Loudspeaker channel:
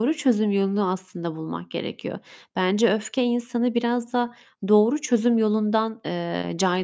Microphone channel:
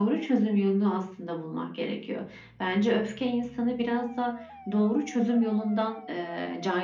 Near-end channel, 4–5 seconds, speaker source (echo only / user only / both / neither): echo only